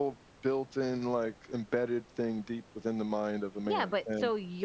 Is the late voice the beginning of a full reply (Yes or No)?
Yes